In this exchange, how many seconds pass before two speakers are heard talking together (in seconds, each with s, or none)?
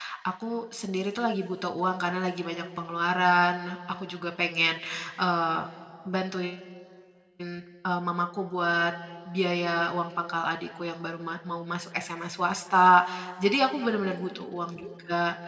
none